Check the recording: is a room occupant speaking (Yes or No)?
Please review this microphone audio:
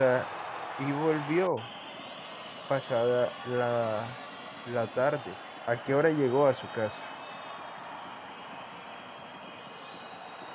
Yes